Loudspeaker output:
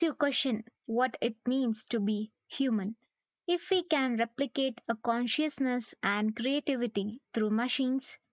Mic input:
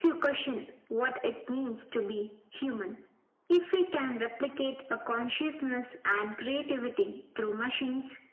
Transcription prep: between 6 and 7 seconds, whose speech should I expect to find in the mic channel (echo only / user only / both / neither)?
echo only